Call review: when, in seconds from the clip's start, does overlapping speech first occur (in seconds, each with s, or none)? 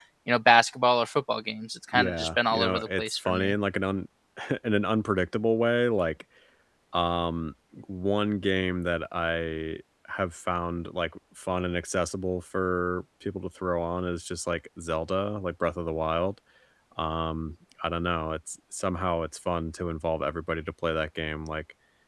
1.9 s